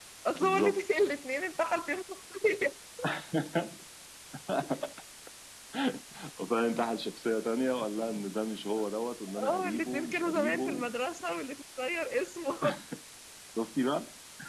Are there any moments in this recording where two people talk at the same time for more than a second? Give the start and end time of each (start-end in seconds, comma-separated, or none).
9.5-10.9